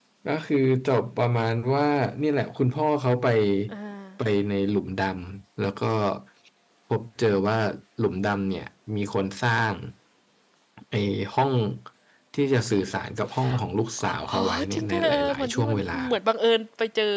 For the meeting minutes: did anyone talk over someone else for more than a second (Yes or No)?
Yes